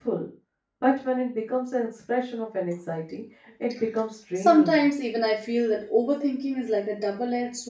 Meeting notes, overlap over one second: none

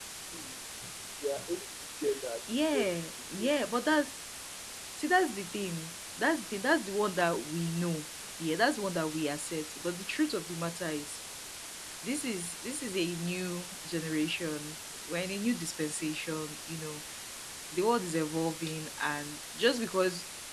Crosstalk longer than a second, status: none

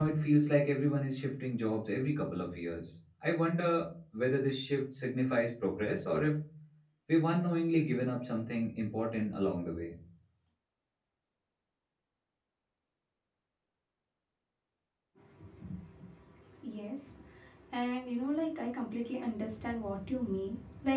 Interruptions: none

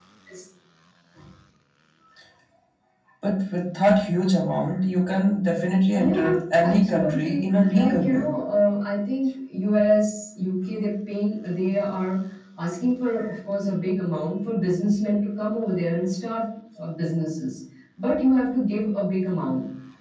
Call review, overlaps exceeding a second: present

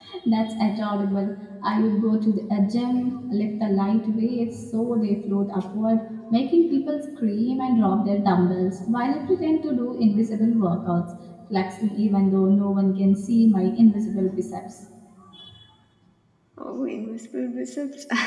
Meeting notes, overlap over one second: none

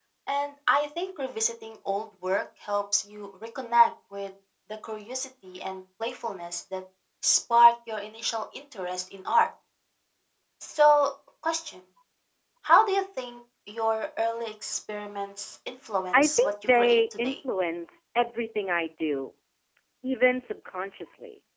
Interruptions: present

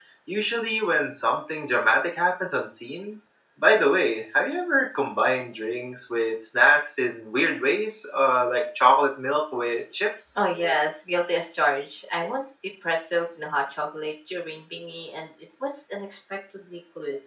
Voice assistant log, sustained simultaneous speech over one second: none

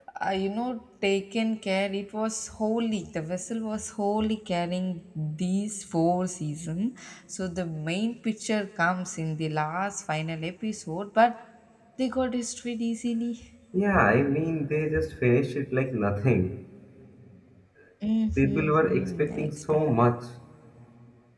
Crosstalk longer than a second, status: present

